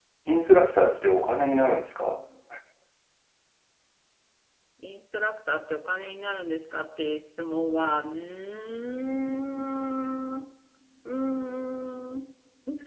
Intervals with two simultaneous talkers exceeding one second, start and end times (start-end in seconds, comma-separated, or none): none